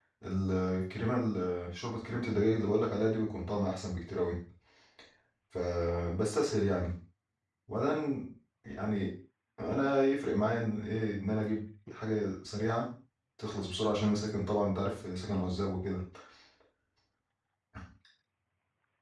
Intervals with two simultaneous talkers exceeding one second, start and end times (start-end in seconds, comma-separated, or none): none